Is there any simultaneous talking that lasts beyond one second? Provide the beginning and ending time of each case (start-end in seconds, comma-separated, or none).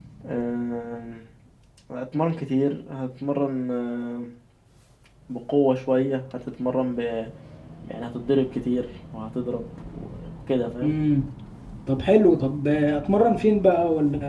none